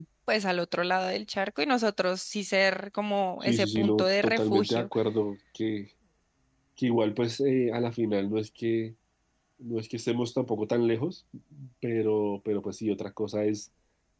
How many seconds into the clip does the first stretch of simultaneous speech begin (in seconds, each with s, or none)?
3.4 s